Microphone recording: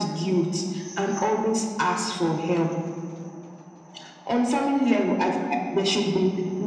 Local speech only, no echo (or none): none